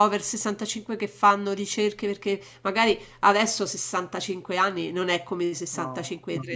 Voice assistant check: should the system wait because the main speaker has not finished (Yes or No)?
Yes